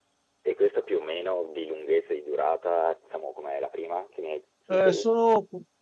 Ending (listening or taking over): taking over